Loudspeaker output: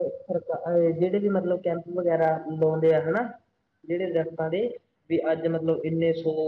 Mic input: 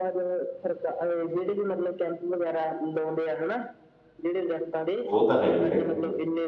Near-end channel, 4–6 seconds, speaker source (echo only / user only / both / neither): both